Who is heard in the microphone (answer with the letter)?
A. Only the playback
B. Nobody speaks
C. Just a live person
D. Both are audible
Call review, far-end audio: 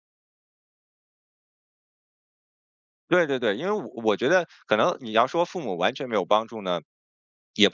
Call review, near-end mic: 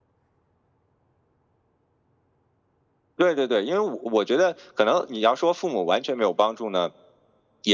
A